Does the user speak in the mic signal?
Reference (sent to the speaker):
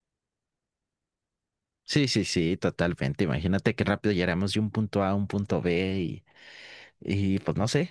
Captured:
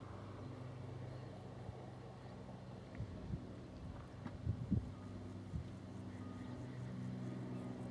No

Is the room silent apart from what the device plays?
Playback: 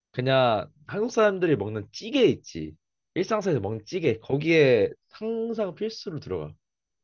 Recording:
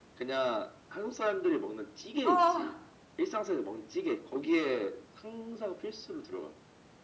No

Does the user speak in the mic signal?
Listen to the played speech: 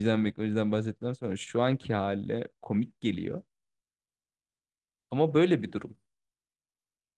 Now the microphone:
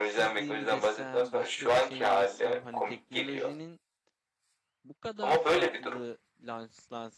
Yes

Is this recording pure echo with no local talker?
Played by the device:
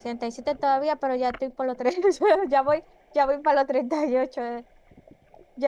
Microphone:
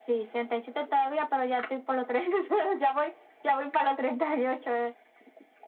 Yes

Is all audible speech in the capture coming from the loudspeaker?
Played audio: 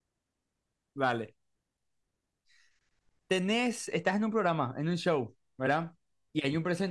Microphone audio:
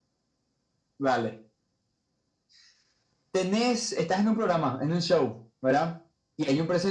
Yes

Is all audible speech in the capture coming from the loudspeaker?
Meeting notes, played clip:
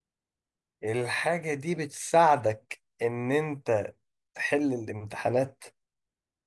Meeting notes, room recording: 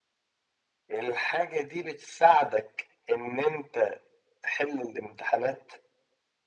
Yes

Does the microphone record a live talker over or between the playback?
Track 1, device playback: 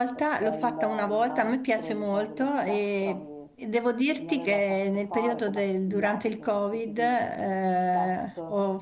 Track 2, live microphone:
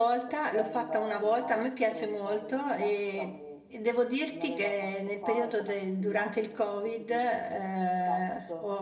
No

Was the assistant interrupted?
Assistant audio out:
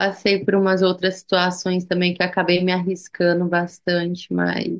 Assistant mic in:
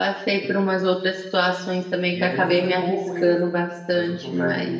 Yes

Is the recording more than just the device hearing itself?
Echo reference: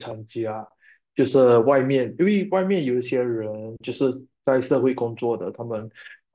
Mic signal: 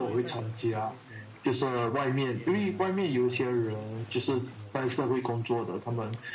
Yes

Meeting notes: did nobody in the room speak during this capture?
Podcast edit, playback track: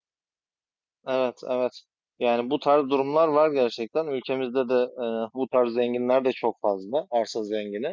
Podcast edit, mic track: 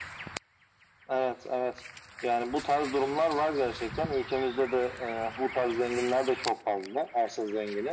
Yes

